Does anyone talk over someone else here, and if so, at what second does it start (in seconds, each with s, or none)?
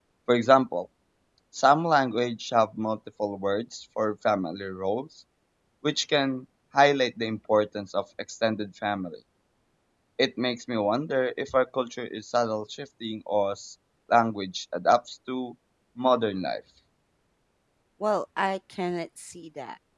none